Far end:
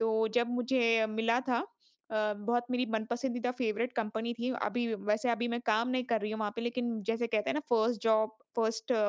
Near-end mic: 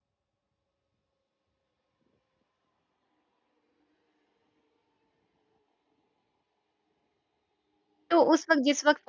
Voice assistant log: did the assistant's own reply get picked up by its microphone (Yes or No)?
No